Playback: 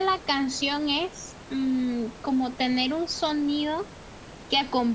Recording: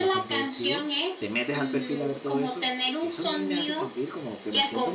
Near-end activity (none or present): present